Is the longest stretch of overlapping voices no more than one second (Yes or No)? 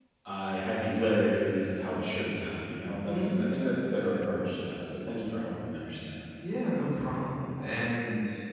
Yes